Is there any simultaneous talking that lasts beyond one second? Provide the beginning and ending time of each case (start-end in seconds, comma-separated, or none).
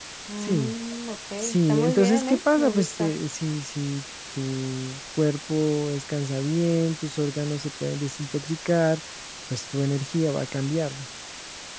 1.4-3.2